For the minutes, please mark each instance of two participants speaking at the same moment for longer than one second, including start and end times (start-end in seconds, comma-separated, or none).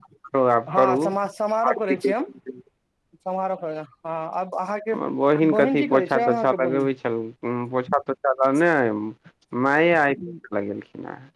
5.6-6.9